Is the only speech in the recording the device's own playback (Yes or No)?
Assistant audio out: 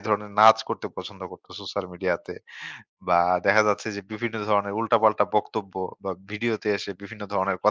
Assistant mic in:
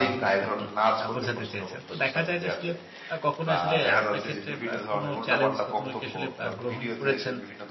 No